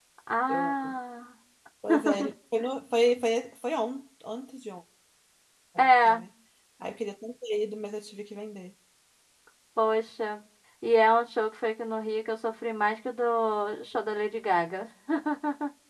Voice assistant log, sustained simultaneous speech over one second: none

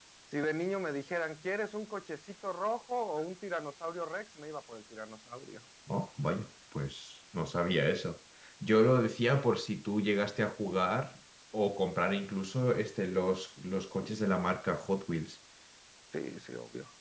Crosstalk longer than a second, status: none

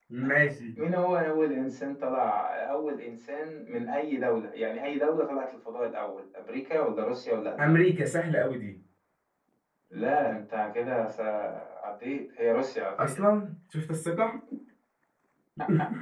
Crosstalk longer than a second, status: none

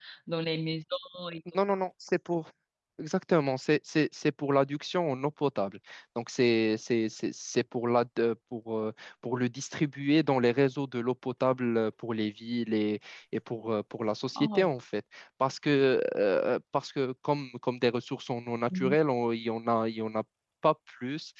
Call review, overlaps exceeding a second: none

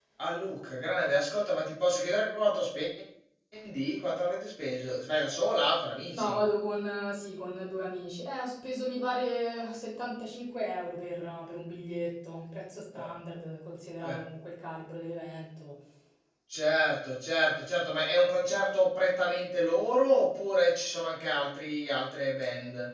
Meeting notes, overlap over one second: none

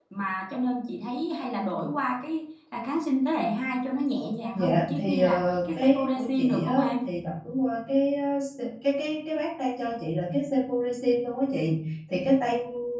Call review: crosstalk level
present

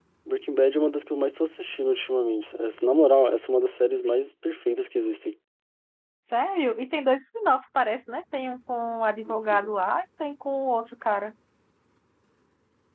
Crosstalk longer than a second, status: none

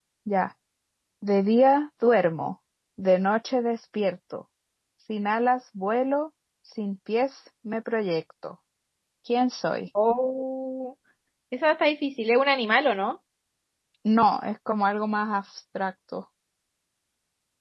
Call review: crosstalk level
none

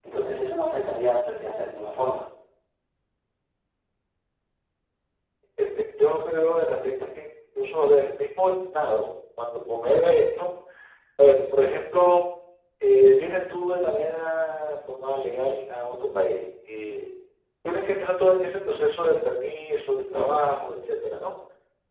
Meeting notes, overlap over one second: none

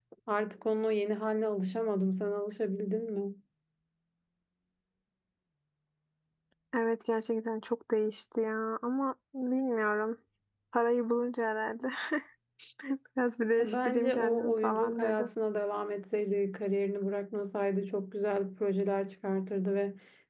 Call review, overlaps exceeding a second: present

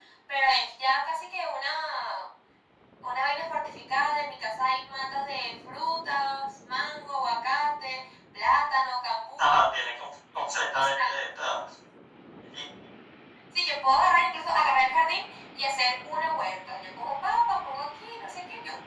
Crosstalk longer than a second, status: none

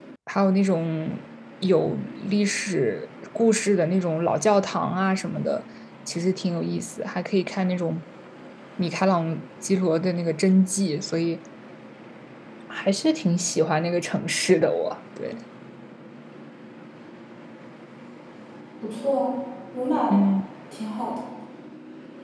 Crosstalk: none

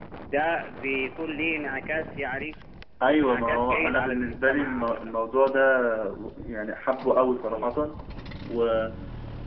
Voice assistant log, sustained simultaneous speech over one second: present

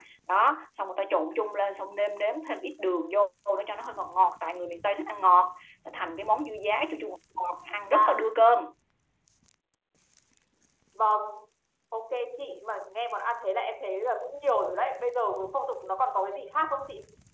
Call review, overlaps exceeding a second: none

